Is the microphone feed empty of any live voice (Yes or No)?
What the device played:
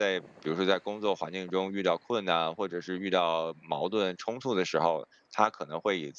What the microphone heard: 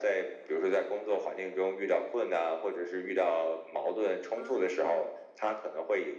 No